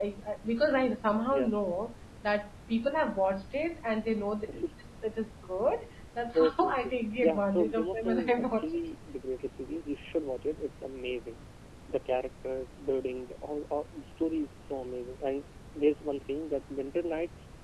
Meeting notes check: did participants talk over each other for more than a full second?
Yes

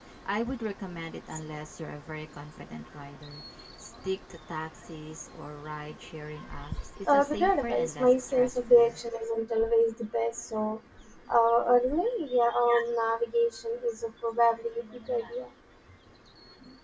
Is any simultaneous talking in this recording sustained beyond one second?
Yes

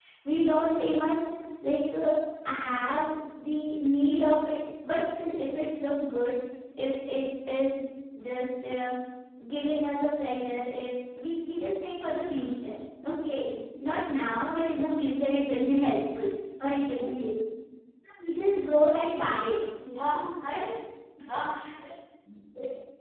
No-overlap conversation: Yes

